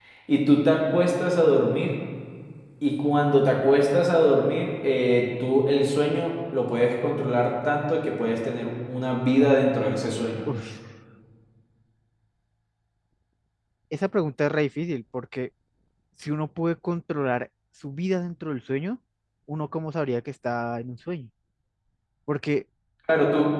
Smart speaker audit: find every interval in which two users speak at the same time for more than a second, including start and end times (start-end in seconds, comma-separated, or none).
none